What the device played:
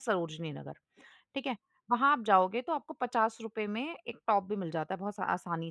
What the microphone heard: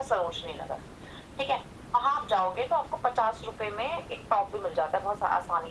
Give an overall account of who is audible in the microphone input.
echo only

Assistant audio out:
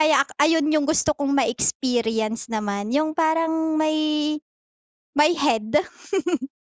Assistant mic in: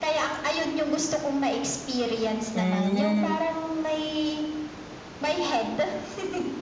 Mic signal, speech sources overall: both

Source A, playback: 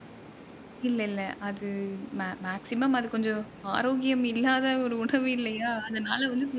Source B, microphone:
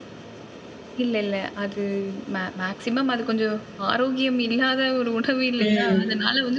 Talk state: both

